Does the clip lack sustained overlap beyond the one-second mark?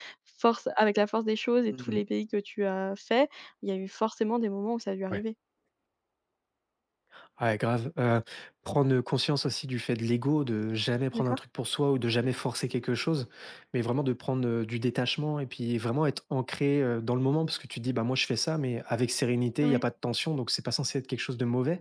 Yes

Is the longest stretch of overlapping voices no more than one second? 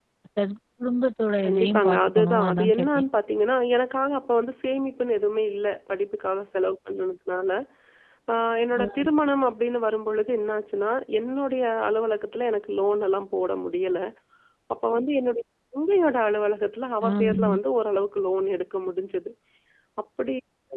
No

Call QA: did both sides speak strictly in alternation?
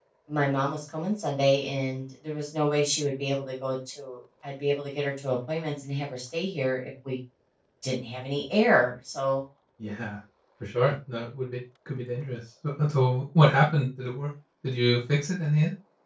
Yes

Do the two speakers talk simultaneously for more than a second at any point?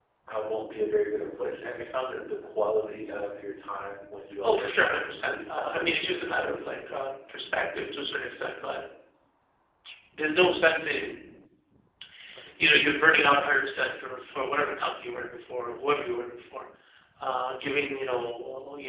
Yes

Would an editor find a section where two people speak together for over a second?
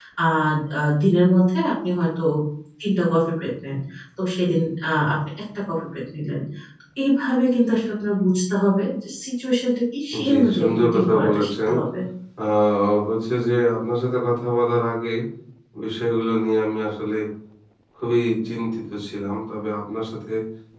Yes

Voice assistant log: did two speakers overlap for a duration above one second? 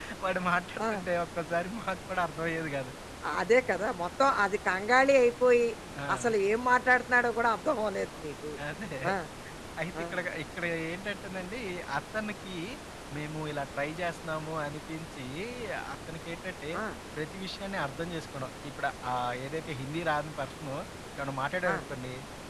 No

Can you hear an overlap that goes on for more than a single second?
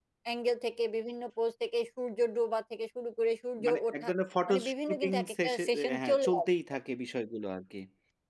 Yes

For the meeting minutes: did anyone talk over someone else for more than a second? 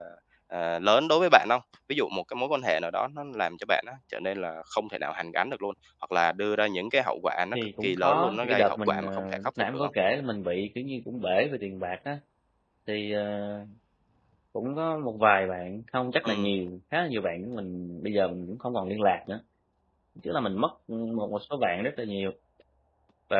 Yes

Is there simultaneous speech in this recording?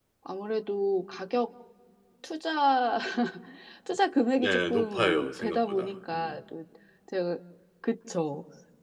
Yes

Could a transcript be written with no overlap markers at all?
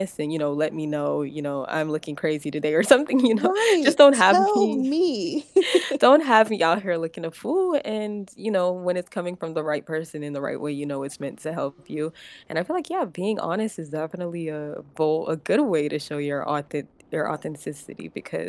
No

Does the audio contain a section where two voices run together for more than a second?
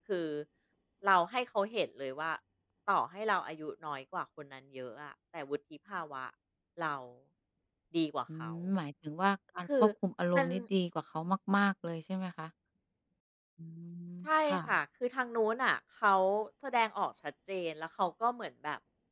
No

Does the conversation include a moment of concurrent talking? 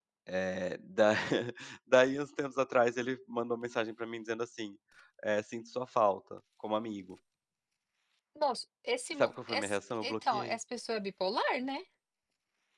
Yes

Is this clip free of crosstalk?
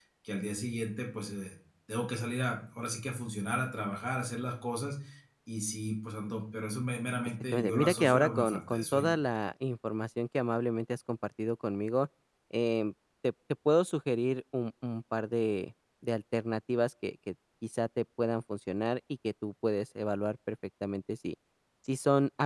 No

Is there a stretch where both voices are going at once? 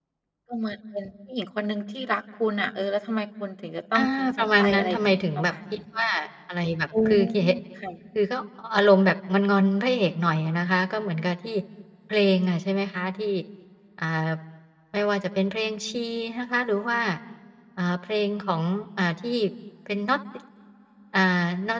Yes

